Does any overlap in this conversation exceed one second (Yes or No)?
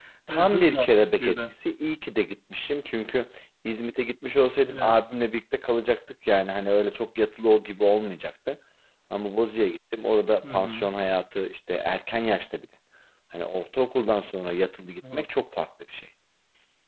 Yes